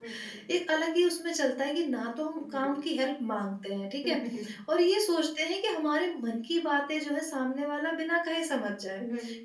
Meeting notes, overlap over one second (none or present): none